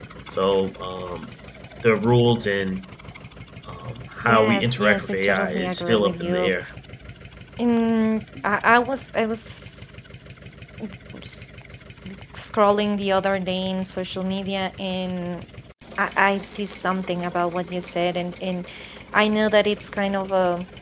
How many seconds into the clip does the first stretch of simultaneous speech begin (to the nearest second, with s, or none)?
4 s